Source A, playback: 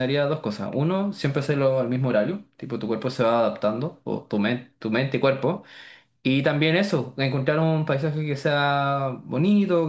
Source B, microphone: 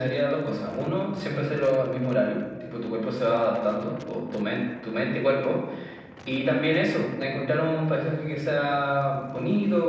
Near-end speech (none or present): none